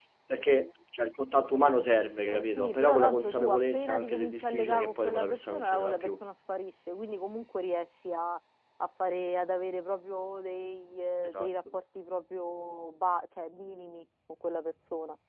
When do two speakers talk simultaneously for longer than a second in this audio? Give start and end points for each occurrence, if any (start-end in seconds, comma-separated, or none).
2.3-6.1